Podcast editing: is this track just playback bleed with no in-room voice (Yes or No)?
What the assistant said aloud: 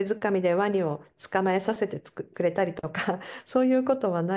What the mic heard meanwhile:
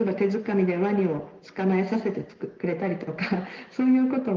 Yes